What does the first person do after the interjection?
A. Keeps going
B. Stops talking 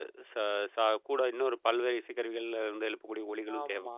B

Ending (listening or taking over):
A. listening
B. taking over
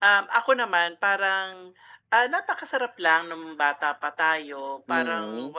A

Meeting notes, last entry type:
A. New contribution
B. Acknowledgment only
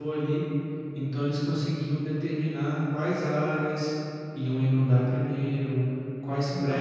B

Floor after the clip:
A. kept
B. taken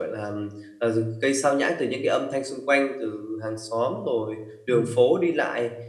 A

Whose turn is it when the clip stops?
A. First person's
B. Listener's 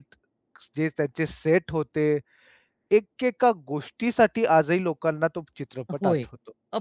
B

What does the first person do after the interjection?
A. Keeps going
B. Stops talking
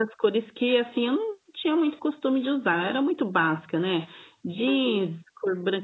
A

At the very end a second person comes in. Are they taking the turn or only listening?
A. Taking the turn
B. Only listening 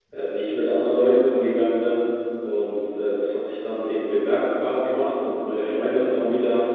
B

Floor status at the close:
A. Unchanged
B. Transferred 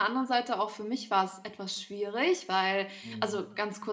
A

